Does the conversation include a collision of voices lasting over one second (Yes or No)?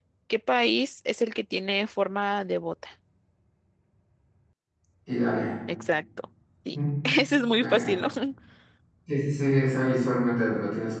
No